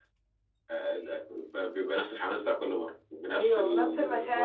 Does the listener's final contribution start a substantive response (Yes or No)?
Yes